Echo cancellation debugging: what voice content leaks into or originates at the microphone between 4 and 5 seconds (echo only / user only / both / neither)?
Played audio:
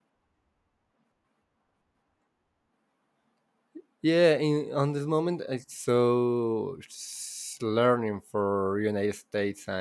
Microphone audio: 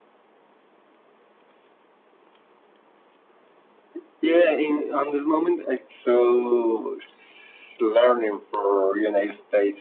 echo only